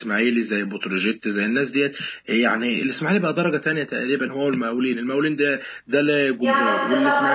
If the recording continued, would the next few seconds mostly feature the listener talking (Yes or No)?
Yes